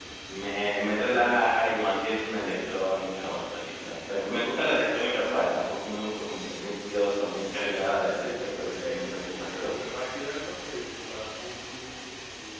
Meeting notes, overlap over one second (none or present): present